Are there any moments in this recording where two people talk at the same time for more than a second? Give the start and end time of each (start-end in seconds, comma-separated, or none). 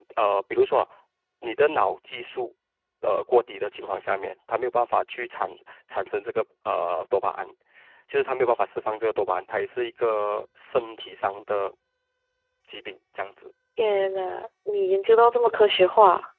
none